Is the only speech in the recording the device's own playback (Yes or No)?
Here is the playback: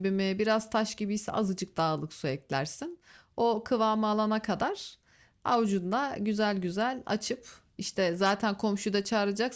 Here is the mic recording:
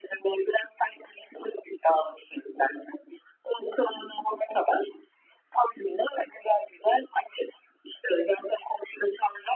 Yes